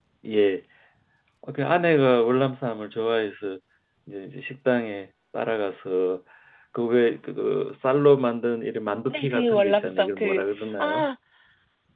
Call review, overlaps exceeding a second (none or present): present